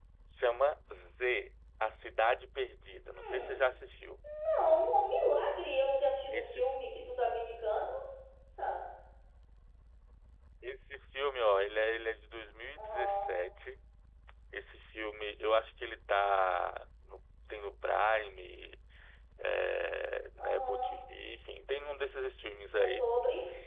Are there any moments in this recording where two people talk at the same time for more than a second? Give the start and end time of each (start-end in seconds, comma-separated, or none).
none